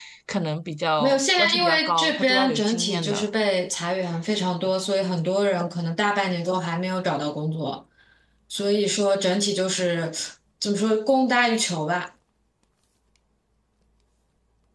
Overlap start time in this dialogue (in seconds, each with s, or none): 1.0 s